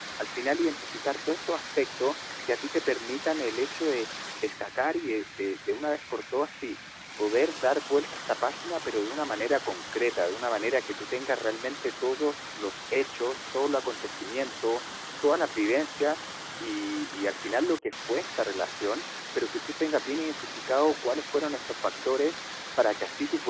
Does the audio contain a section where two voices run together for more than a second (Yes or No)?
No